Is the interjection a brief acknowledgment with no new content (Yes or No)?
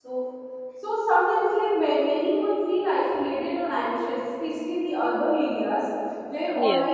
Yes